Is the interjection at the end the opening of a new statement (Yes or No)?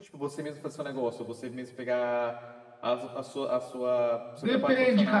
Yes